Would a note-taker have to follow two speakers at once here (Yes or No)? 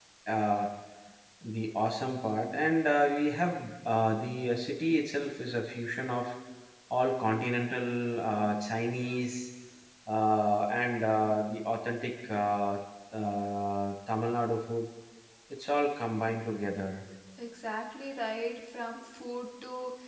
No